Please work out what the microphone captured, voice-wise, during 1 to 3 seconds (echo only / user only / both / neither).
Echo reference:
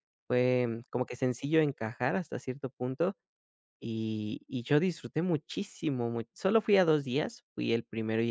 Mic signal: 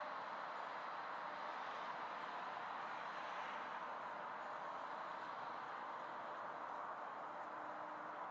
neither